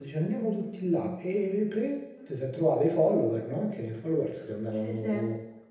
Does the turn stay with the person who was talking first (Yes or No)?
Yes